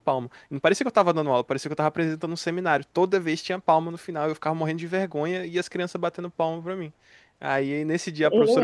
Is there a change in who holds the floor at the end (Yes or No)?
No